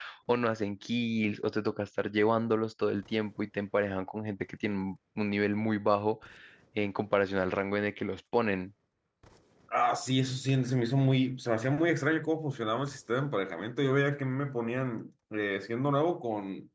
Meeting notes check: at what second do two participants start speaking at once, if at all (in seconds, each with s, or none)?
none